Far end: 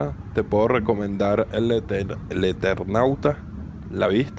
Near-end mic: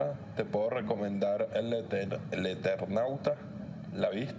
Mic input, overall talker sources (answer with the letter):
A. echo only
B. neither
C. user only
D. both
A